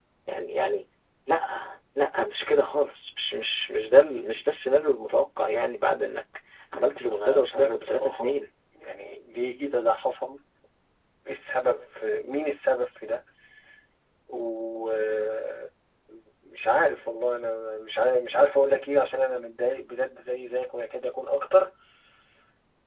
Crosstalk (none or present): present